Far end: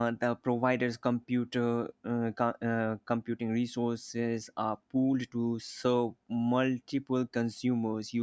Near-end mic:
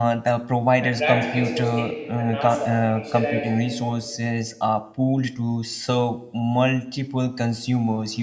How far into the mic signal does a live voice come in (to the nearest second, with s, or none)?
1 s